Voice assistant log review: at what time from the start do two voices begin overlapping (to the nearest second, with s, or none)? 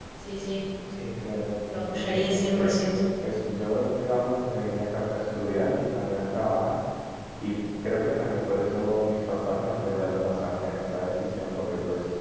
2 s